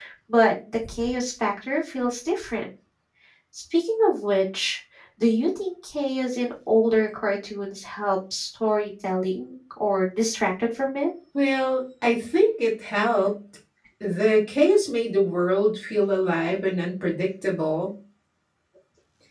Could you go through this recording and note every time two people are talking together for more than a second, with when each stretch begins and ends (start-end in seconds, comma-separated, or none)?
none